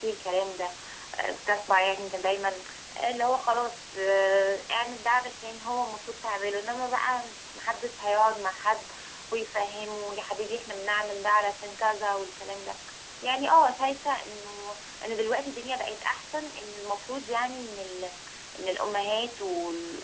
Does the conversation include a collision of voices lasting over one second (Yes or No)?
No